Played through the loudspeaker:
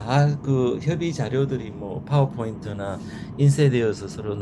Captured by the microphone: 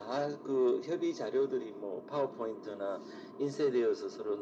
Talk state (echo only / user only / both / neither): echo only